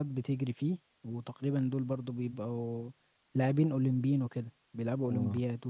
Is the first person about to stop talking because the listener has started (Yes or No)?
Yes